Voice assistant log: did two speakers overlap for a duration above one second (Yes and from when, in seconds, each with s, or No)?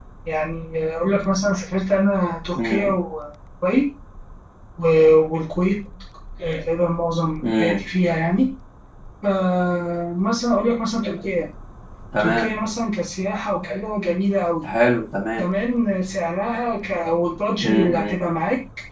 No